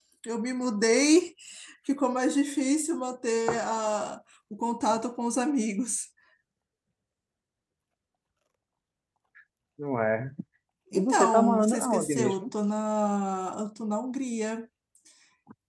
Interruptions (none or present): present